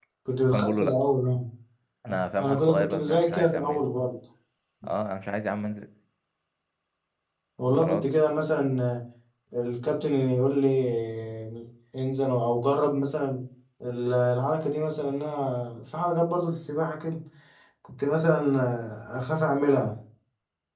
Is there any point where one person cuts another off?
Yes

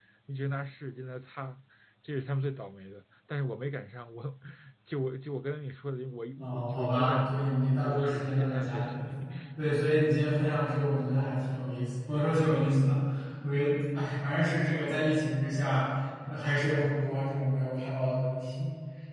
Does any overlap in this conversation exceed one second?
Yes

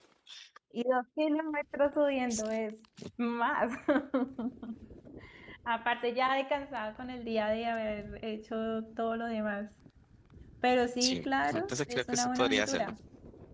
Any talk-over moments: Yes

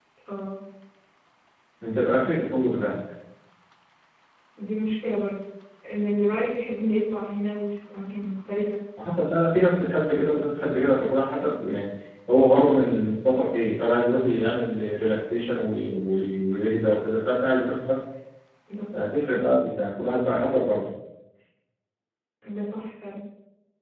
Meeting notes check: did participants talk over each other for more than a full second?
No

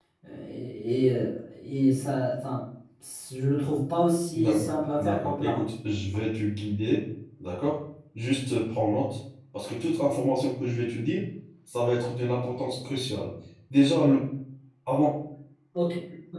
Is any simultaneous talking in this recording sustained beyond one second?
Yes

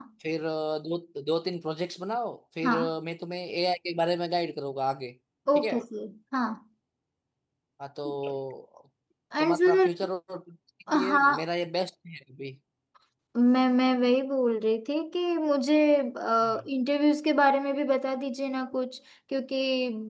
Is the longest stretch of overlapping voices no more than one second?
Yes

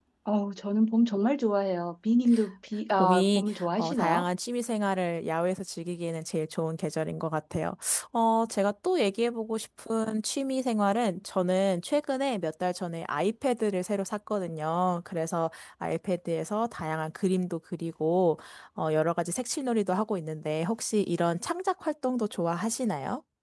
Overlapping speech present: Yes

